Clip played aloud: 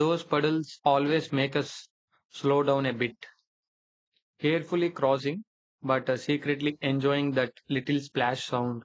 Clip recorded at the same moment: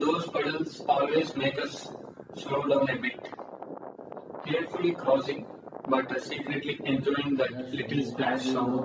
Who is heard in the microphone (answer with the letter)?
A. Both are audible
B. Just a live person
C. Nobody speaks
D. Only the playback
A